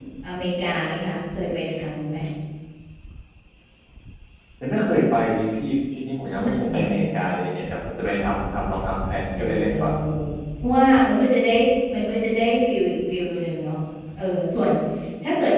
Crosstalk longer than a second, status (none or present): none